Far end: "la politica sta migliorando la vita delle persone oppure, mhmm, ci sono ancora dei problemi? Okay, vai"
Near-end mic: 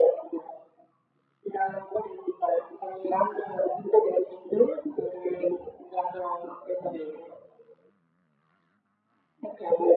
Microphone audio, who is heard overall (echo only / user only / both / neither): echo only